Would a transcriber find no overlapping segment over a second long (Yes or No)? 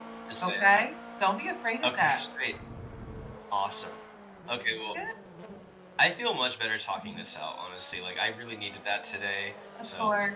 Yes